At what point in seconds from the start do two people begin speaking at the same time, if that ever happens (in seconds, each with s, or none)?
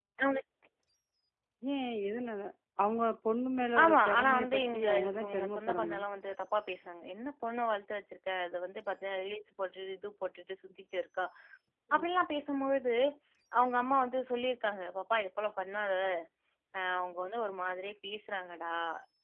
3.8 s